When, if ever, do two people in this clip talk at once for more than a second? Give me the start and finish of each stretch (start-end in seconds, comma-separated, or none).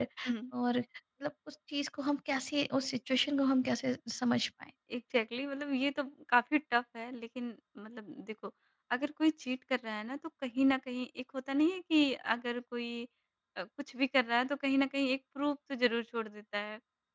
none